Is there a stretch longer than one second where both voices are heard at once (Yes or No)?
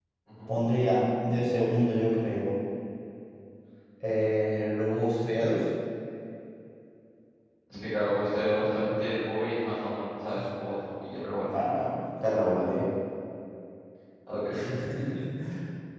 No